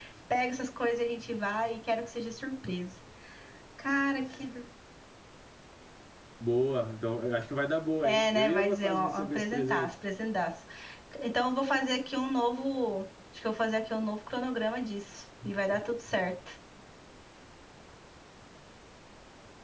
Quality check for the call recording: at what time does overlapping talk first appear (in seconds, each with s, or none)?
8.0 s